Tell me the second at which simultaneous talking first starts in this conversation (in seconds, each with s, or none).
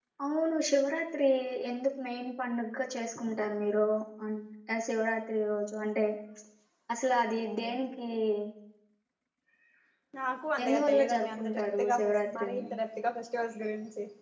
10.6 s